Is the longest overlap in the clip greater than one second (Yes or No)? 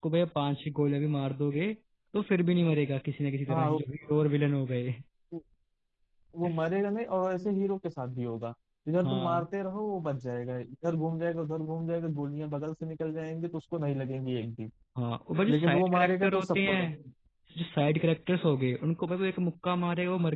Yes